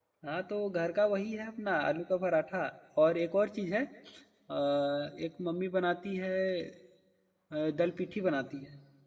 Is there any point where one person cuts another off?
No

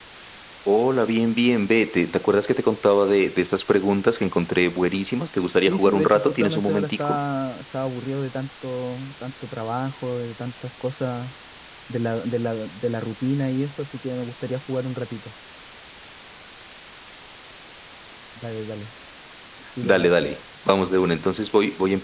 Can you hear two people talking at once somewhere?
Yes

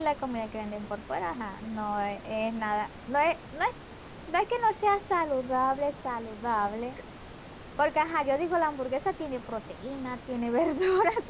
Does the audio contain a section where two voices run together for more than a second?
No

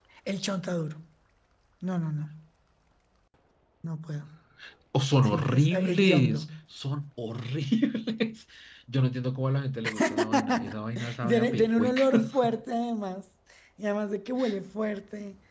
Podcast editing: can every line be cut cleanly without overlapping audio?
No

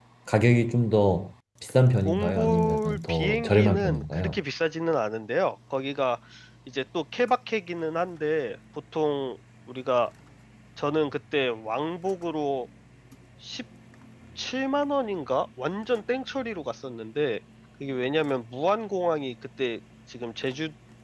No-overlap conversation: No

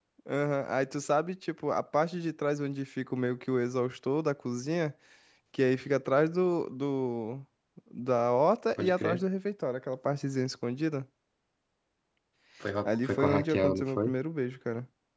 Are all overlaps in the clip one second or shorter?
No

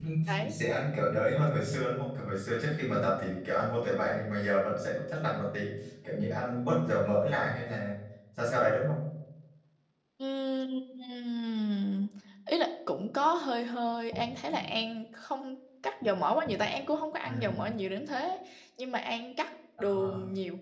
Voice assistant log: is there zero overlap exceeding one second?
Yes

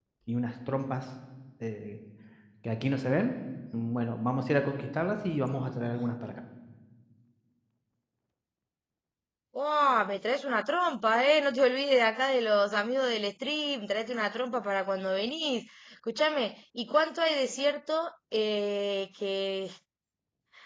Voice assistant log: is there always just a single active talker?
Yes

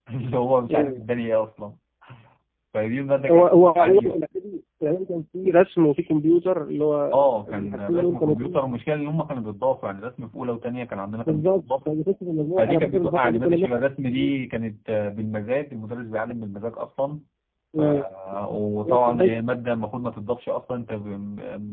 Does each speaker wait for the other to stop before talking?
No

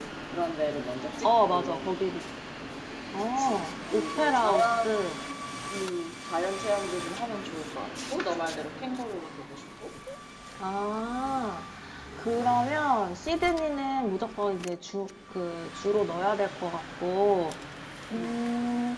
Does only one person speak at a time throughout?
No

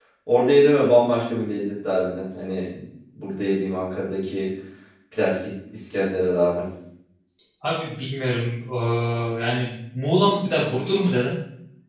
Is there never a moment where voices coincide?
Yes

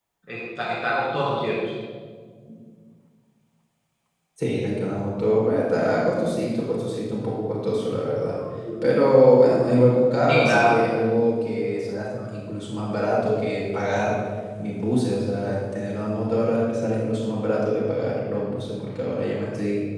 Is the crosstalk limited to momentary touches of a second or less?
Yes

